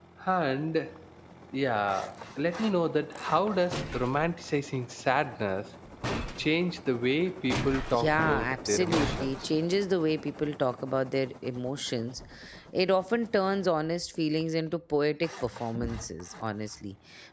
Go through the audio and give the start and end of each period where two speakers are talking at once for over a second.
7.9-9.5

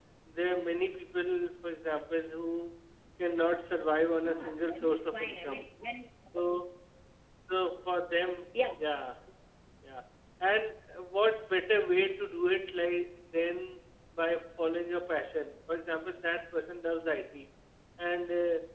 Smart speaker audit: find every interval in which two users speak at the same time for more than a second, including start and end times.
4.1-5.6

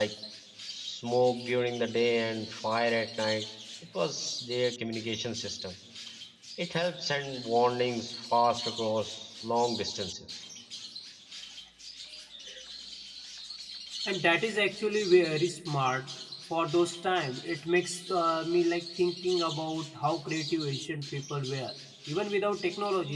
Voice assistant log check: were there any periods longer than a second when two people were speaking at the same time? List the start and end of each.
none

